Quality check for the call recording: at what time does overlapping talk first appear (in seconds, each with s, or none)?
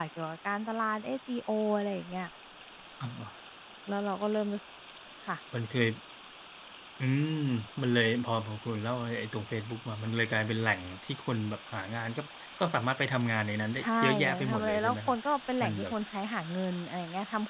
13.8 s